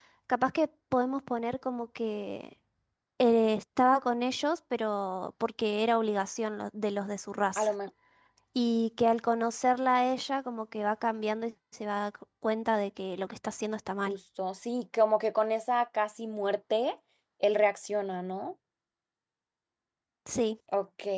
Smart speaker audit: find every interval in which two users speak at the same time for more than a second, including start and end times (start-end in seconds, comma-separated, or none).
none